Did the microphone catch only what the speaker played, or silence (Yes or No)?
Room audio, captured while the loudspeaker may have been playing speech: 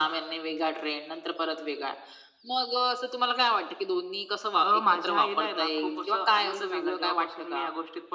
Yes